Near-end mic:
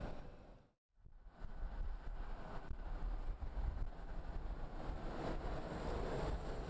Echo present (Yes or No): No